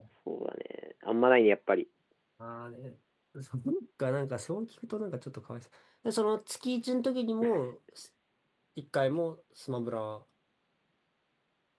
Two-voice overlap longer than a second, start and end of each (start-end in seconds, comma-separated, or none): none